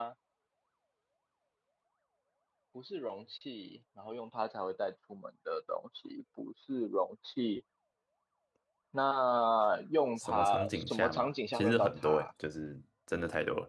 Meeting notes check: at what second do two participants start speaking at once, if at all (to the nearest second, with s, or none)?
10 s